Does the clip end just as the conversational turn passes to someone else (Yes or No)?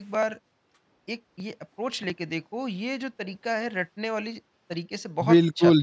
Yes